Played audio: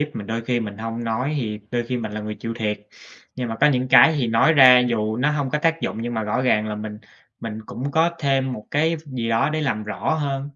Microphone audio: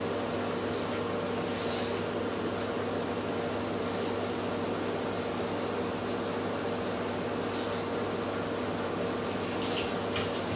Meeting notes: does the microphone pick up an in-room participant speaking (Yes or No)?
No